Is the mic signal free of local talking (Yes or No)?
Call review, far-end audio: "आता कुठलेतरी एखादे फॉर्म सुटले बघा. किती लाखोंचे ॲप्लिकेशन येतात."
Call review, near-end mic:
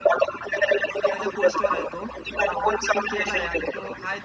No